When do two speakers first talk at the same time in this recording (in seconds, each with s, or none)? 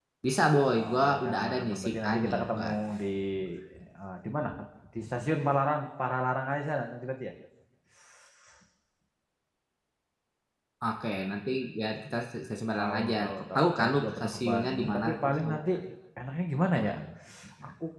0.7 s